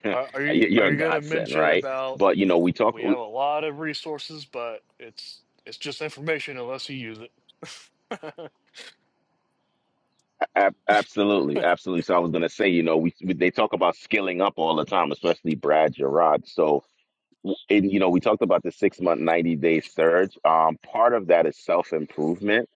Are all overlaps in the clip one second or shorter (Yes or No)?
No